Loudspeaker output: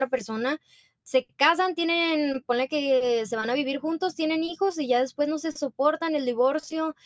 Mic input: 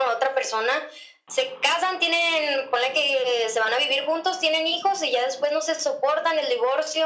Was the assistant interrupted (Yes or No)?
No